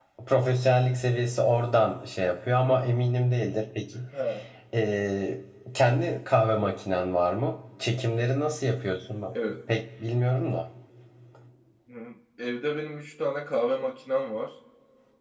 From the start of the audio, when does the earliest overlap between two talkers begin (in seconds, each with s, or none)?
none